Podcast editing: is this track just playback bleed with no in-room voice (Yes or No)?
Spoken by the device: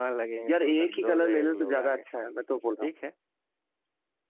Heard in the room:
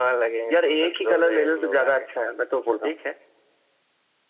Yes